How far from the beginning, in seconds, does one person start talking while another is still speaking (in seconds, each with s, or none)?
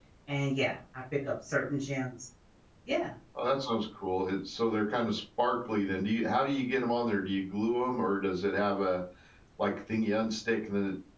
none